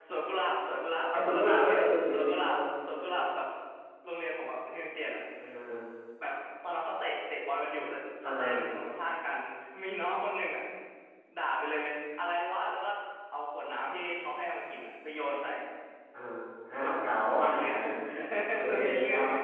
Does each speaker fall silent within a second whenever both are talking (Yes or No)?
No